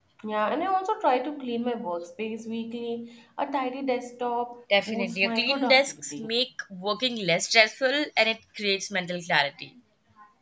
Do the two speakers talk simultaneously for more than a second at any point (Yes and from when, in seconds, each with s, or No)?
Yes, from 4.7 s